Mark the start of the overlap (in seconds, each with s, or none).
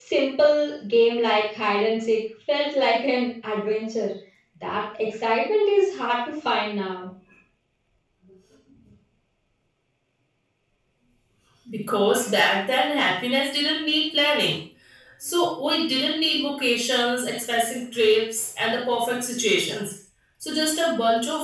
none